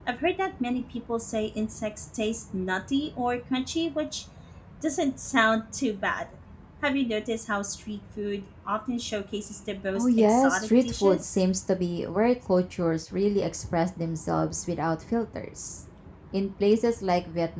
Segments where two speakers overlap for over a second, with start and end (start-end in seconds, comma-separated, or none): 9.9-11.3